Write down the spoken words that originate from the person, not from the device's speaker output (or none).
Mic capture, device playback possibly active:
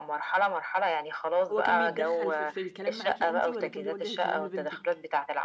هو كان بيتدخّل في في الكلام معاكِ أنتِ والَّا كان بيوجِّه الكلام لبنتِك؟